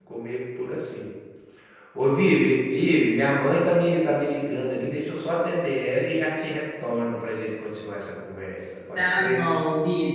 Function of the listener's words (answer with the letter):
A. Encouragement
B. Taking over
B